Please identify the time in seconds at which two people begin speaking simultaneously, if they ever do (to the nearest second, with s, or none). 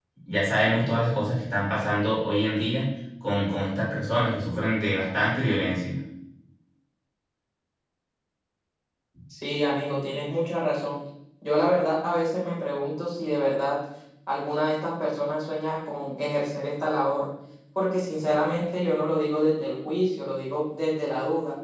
none